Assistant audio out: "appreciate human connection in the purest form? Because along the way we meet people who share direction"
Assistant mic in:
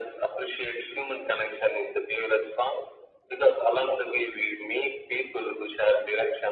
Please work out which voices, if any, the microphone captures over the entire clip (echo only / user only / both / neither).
echo only